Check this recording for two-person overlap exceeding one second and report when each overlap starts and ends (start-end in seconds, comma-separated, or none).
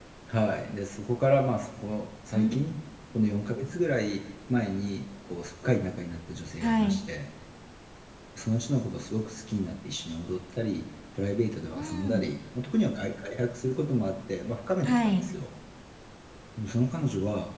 none